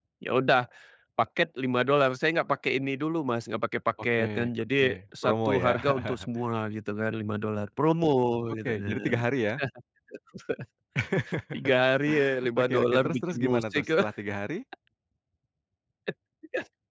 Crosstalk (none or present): present